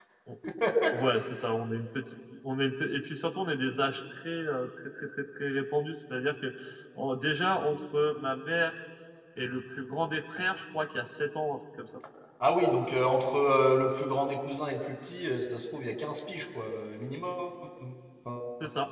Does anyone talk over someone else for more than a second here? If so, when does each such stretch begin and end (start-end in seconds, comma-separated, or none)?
none